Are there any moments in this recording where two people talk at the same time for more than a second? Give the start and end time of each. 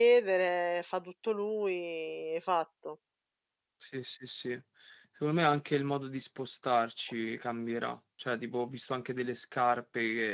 none

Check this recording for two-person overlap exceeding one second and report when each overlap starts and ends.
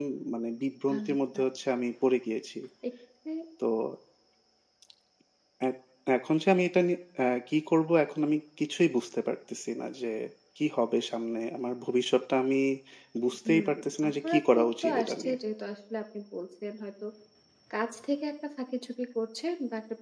14.1-15.3

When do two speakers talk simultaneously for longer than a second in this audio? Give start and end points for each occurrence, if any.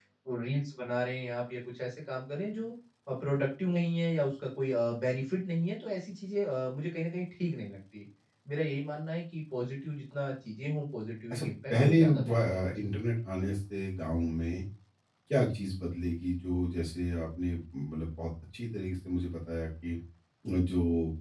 11.3-12.8

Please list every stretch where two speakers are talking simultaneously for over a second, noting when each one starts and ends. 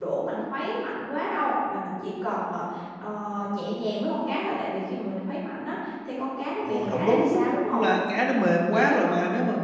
6.6-7.8

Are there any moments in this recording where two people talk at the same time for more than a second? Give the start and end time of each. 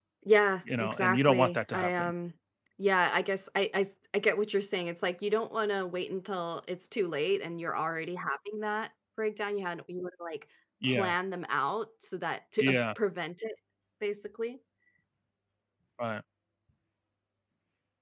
0.8-2.1

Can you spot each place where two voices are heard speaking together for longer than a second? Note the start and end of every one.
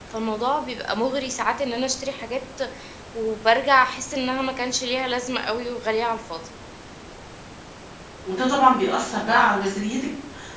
none

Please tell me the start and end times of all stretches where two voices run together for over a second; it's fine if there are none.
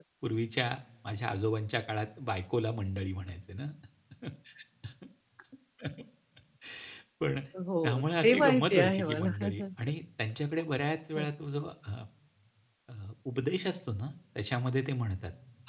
7.8-9.6

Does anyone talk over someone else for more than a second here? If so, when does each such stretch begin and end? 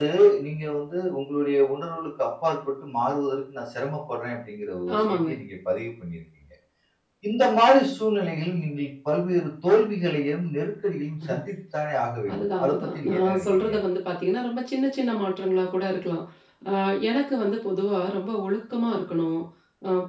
12.3-13.8

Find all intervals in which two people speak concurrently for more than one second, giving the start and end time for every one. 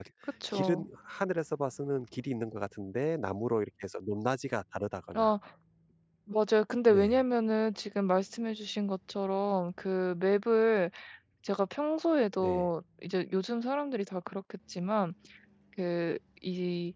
none

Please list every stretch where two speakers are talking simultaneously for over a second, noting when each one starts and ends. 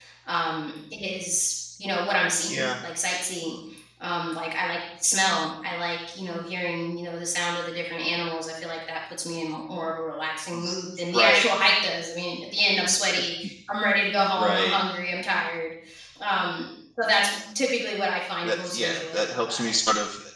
18.4-19.7

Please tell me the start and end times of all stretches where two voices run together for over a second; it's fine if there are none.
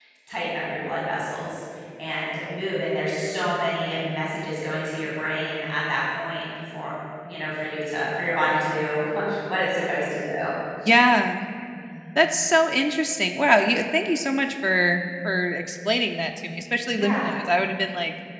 none

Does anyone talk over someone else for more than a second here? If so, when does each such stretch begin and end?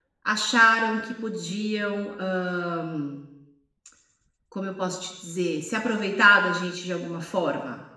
none

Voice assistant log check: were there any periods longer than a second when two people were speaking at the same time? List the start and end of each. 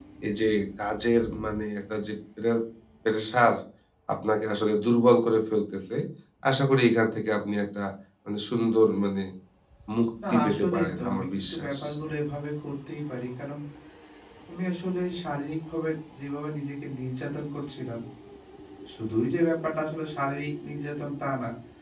10.3-11.7

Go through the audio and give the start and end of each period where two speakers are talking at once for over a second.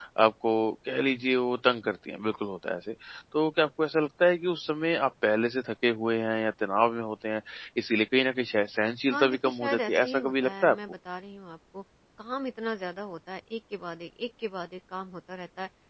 9.1-10.8

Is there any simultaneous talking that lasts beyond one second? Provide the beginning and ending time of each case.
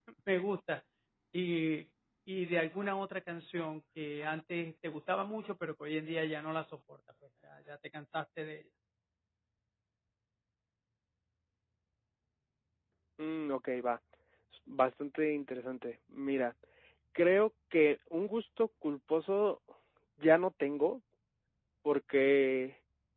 none

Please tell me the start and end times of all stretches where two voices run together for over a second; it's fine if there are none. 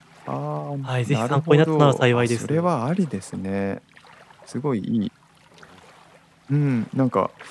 1.1-2.6

